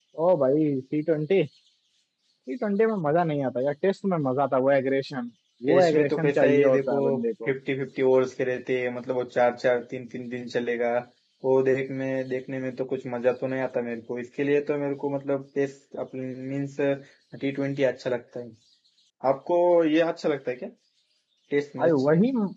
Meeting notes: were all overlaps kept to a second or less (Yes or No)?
No